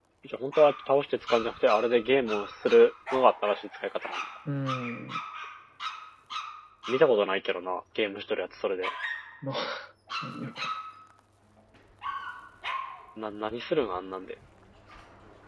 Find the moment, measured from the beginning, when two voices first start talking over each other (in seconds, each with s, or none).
none